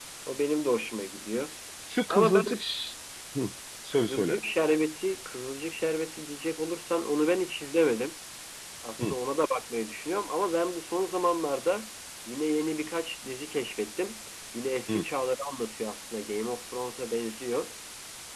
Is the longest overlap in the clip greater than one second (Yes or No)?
No